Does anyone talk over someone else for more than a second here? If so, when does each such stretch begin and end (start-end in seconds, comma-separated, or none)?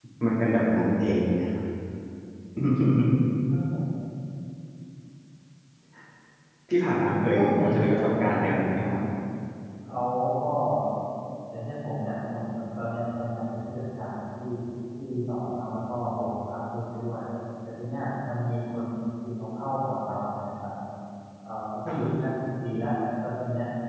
7.3-8.8